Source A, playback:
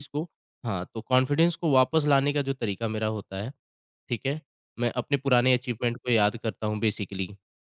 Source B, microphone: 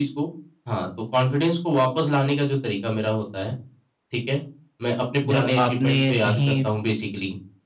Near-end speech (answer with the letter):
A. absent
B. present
B